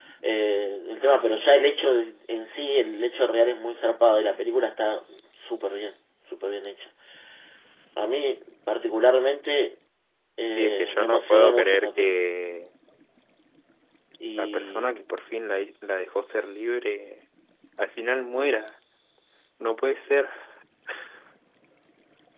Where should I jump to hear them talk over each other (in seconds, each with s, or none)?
10.6 s